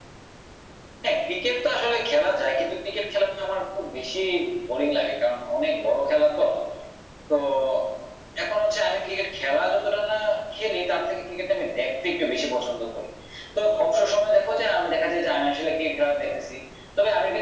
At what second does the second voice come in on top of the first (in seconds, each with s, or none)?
none